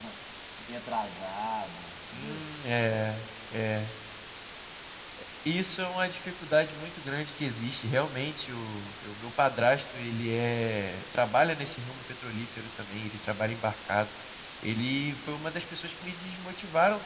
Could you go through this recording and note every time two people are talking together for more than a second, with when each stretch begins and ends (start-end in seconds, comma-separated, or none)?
none